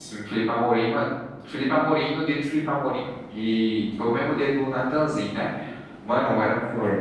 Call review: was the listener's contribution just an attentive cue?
Yes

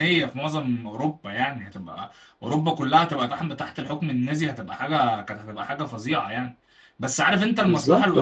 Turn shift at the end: No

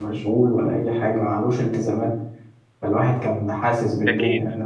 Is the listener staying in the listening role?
Yes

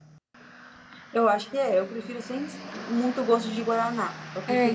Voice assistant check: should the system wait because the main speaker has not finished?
No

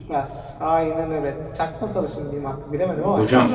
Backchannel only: No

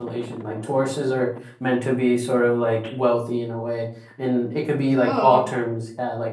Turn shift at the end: No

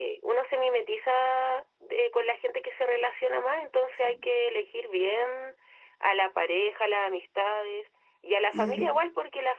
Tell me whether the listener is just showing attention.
Yes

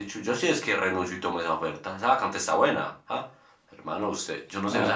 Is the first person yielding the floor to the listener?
No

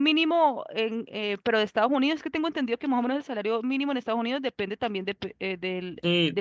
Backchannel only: No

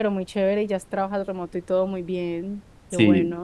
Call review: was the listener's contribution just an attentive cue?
No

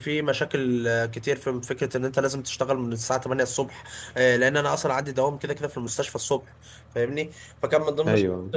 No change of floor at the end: Yes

